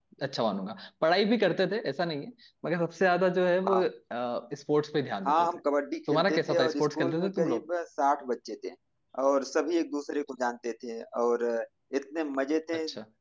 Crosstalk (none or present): present